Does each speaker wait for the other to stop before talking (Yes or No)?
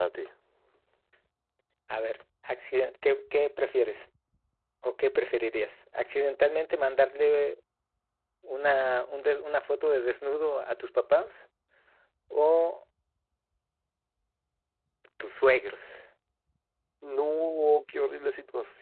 Yes